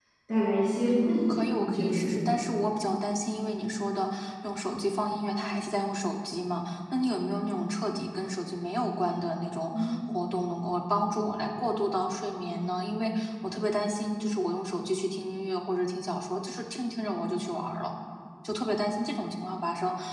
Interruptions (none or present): present